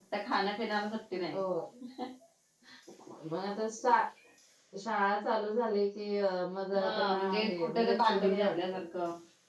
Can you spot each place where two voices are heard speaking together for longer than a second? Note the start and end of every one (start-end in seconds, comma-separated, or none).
6.8-8.6